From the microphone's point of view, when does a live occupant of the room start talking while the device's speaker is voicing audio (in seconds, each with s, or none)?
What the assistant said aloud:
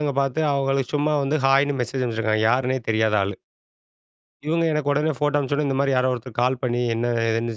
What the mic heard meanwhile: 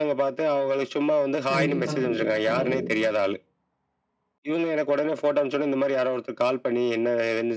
1.5 s